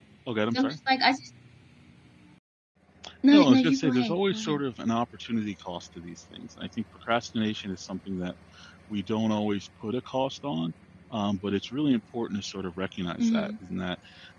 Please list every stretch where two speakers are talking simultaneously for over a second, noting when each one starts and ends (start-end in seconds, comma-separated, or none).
3.3-4.6